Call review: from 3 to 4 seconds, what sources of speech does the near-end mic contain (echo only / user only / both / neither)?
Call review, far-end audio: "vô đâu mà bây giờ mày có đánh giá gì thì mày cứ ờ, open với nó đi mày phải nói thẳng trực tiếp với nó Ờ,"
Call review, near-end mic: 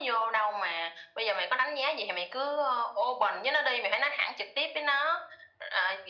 echo only